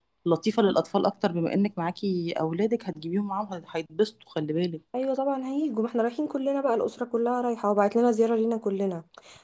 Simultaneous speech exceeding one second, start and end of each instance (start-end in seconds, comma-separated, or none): none